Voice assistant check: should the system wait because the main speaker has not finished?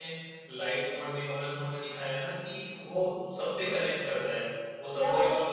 Yes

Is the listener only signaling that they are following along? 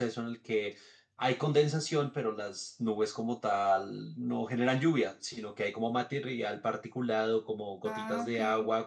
Yes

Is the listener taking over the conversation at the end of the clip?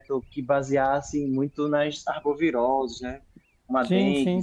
Yes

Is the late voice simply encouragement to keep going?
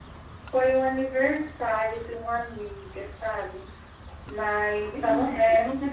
No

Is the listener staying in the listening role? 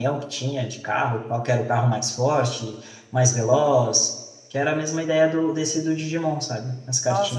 No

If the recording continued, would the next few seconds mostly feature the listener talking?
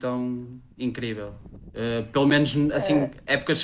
No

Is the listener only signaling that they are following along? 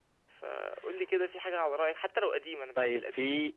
No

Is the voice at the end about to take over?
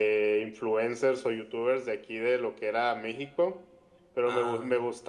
No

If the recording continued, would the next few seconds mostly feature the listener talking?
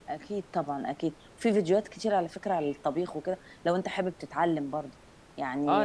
Yes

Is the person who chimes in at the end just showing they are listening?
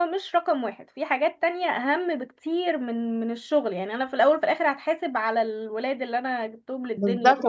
No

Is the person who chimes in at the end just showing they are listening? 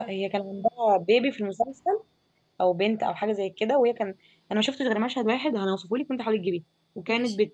Yes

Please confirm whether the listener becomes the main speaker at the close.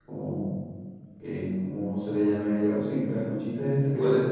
Yes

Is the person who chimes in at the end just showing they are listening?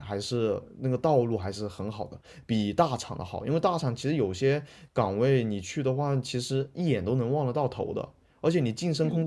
Yes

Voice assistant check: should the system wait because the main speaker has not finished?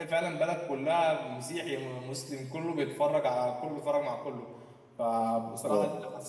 Yes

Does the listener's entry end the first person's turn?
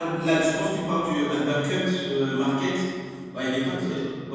No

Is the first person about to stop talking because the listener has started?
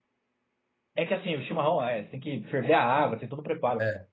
No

